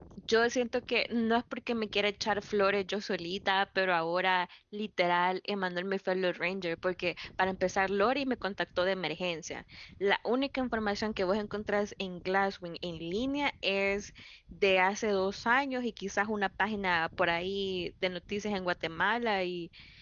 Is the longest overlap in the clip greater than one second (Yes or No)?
No